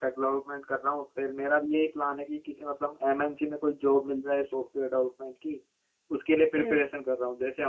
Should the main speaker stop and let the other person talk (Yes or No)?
No